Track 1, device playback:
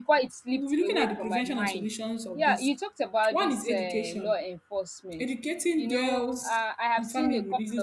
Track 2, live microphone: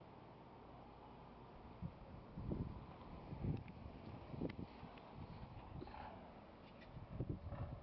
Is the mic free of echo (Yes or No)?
Yes